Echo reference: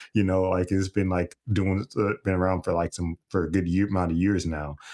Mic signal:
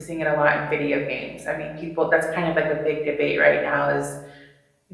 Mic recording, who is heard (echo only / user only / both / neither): user only